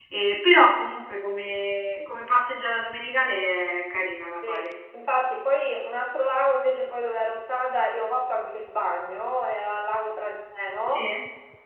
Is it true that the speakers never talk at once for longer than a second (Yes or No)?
Yes